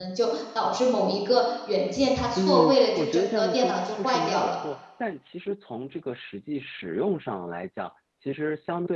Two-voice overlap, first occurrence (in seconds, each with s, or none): 2.4 s